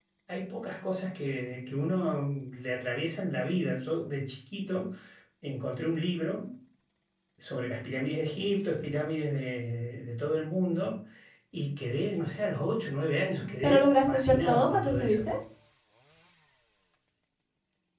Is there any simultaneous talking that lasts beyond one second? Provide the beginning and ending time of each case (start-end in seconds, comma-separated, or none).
13.4-15.3